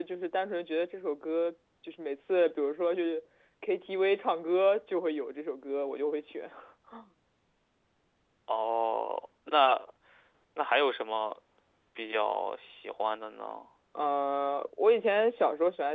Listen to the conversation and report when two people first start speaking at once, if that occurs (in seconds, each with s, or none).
none